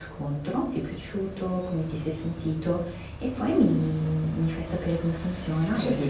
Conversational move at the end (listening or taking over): taking over